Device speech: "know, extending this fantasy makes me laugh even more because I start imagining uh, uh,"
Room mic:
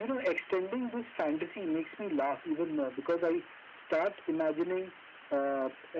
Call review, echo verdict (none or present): present